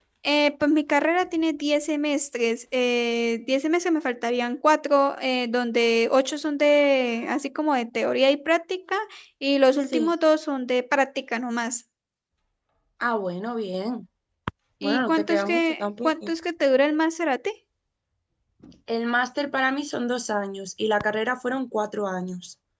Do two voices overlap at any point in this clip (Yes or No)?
Yes